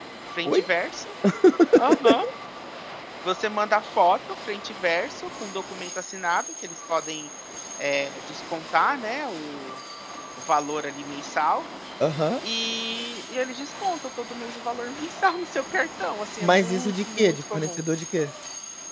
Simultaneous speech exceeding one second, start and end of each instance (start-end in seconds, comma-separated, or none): 16.4-17.8